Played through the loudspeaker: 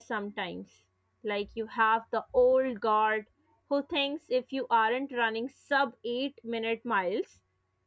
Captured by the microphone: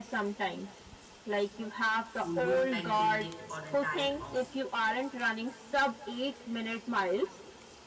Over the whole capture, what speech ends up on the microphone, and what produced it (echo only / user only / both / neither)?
both